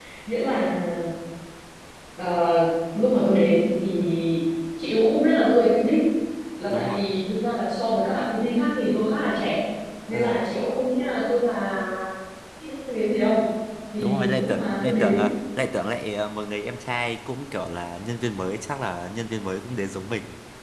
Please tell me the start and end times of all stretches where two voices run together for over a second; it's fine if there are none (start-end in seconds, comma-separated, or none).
14.0-15.3